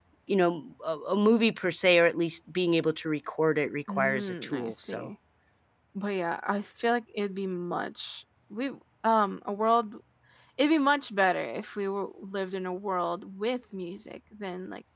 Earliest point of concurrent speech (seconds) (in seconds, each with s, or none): 3.9 s